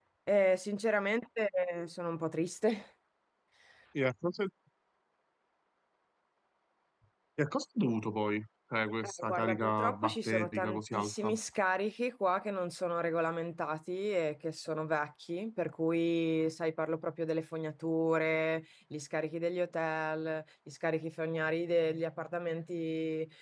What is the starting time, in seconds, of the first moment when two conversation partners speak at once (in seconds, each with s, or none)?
9.0 s